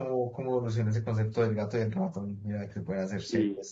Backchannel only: No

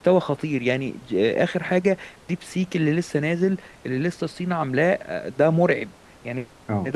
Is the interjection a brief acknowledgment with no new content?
Yes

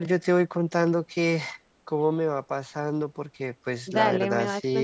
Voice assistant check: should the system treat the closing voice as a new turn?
Yes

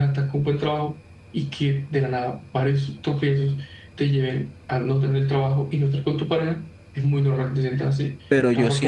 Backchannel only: No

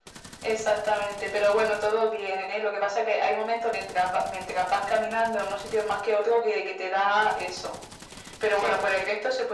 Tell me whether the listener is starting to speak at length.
No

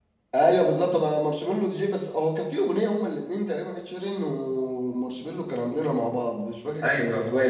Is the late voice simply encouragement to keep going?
No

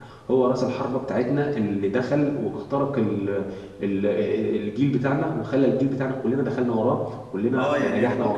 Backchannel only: No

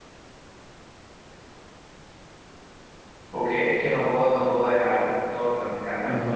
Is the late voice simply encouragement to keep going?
No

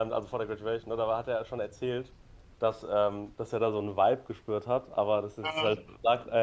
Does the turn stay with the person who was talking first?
Yes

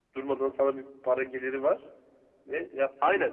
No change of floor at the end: No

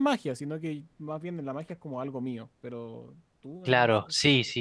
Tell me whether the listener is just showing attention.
No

